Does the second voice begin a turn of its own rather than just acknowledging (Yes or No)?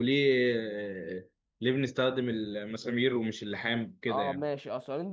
Yes